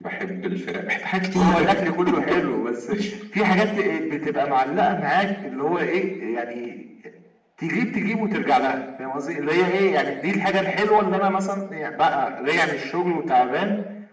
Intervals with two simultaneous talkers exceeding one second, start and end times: none

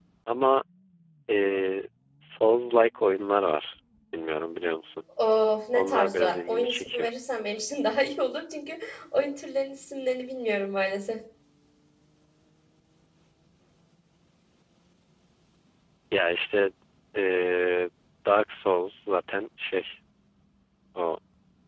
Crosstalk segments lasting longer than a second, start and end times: 5.7-7.1

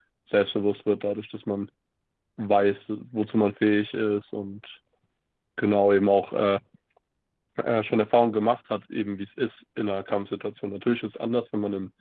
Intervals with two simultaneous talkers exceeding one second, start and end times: none

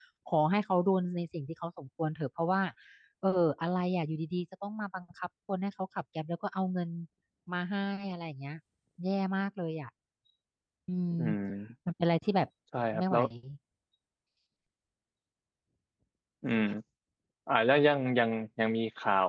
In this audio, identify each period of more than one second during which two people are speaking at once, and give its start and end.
none

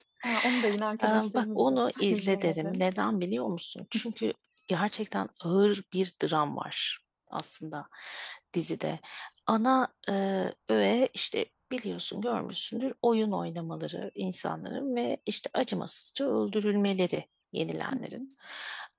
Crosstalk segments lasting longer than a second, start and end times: 1.0-2.8

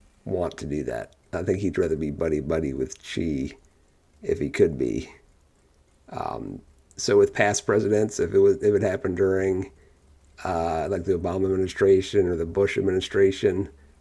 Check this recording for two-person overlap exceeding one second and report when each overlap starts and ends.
none

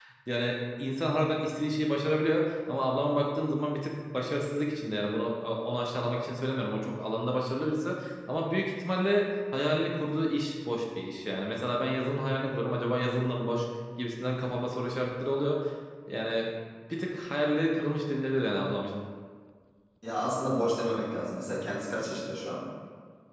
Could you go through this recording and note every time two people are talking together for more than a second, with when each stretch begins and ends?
none

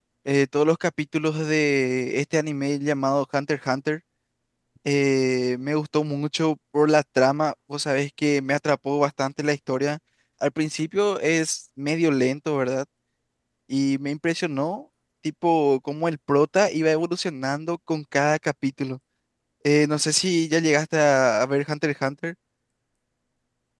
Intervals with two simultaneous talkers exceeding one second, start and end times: none

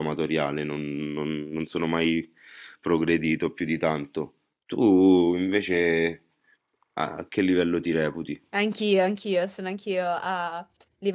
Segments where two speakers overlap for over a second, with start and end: none

